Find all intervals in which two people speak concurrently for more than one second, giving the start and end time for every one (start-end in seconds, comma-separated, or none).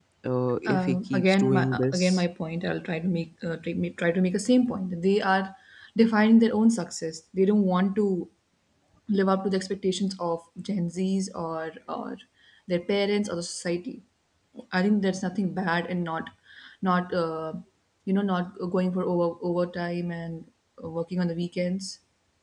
0.7-2.2